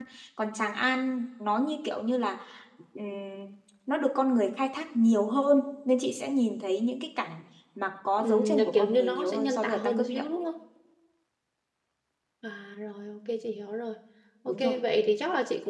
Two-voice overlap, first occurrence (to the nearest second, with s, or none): 8 s